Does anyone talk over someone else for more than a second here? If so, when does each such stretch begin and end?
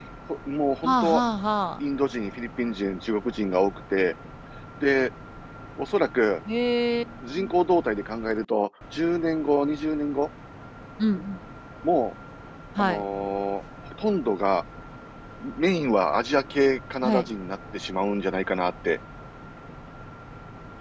none

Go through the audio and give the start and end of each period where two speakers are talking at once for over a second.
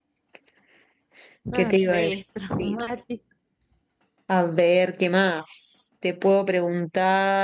1.6-2.8

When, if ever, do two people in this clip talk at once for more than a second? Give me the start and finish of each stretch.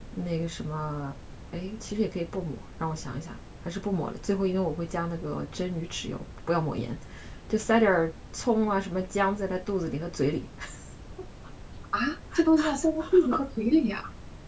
none

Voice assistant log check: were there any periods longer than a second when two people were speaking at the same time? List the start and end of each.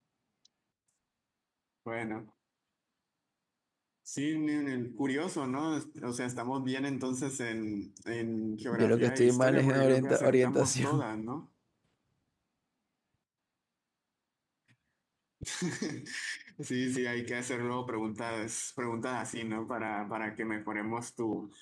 8.7-11.0

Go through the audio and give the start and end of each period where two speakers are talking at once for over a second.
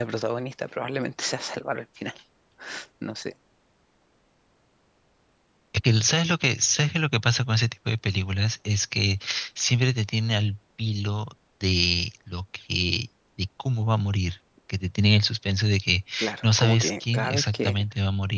16.4-17.8

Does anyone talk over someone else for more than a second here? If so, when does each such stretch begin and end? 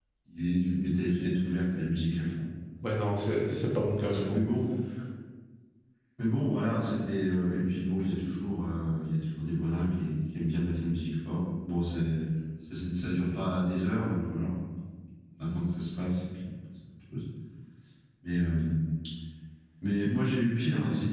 none

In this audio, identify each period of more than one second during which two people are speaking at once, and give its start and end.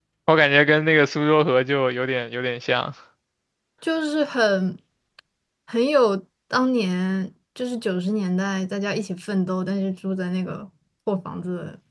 none

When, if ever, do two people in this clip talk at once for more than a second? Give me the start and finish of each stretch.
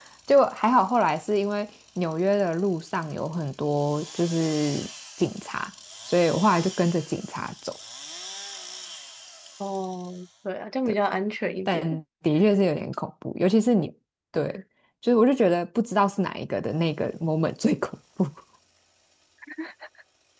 none

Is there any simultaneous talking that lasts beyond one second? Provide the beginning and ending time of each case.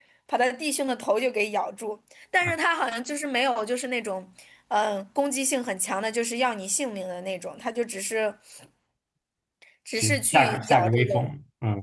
10.0-11.3

